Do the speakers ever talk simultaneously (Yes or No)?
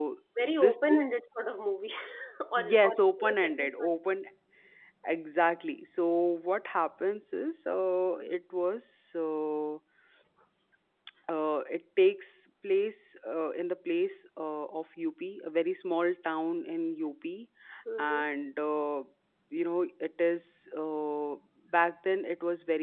Yes